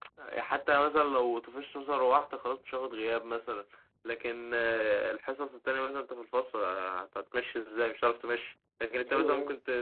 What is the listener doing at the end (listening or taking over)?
listening